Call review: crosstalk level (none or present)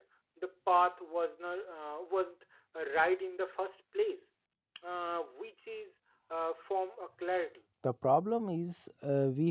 none